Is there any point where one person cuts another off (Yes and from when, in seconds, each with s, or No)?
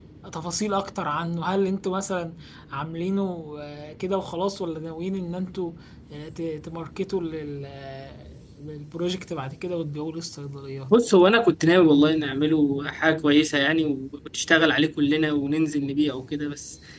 No